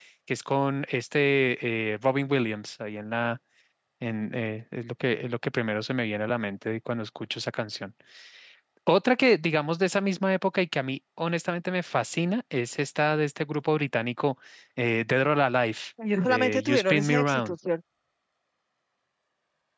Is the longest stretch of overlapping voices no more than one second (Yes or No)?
No